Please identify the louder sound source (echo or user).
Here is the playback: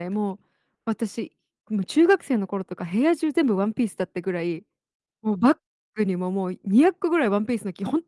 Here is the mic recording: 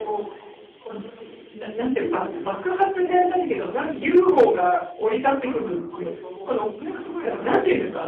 user